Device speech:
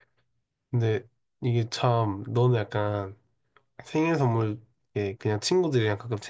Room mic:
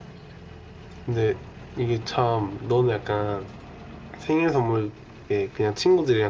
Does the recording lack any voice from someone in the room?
Yes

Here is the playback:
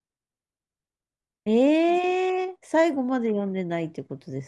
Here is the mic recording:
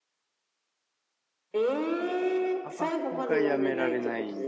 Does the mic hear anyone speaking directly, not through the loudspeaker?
Yes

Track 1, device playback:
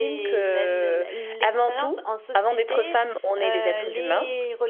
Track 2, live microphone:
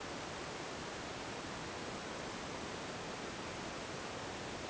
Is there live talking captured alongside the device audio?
No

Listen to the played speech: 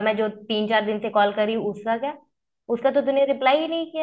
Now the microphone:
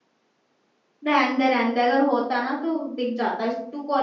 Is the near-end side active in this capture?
Yes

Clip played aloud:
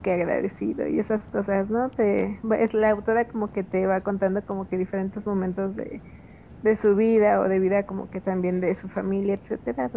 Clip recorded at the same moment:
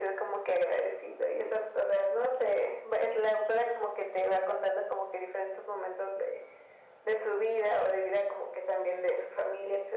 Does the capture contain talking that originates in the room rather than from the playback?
No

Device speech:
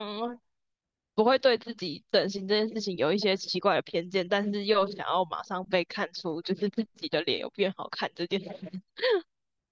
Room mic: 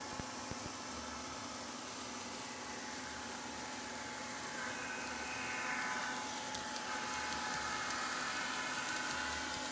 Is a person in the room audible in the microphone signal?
No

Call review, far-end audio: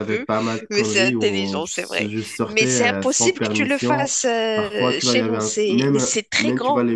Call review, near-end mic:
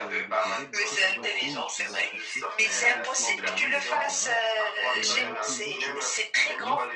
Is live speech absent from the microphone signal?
No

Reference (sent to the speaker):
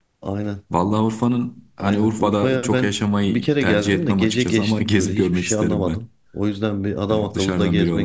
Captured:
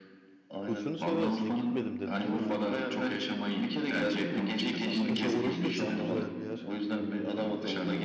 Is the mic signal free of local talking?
No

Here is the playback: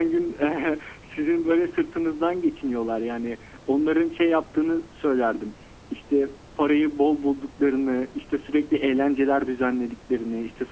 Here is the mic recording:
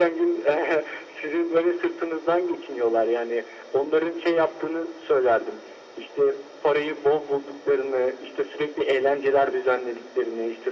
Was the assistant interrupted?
No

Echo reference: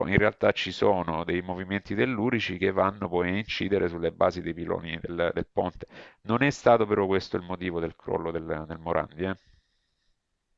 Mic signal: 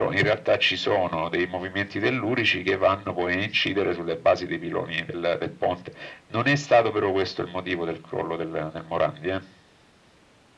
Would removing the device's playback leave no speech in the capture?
Yes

